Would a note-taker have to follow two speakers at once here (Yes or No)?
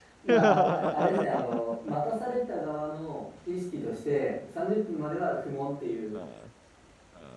Yes